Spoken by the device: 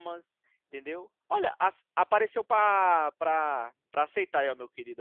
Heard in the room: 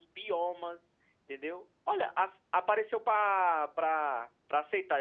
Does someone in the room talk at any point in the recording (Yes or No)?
No